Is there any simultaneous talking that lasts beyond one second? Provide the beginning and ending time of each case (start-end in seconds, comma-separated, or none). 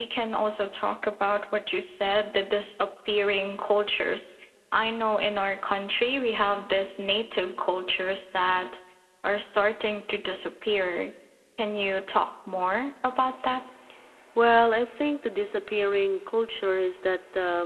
none